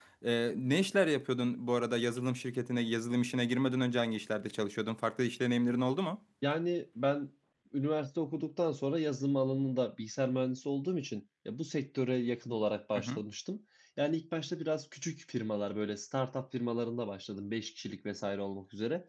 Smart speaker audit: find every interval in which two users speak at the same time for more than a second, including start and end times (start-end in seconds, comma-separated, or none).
none